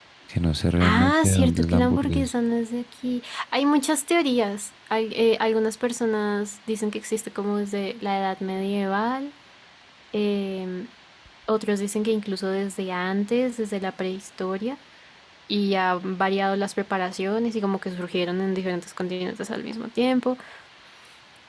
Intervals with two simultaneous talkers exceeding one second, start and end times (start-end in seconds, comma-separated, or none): 0.8-2.3